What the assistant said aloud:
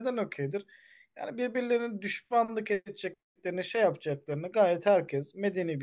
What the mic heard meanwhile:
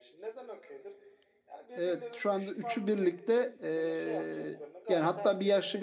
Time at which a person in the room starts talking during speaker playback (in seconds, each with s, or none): 1.8 s